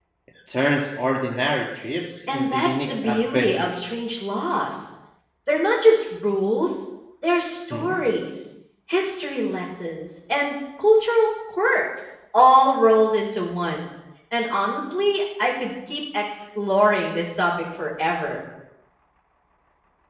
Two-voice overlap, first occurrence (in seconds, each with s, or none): 2.3 s